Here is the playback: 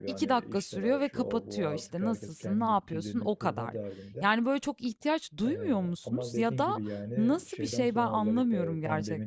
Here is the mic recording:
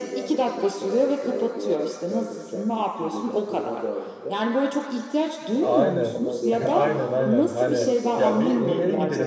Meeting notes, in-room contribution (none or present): present